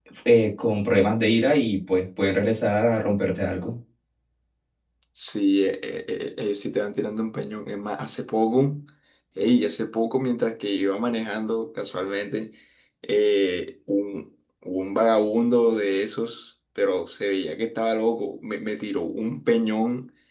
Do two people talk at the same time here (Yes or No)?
No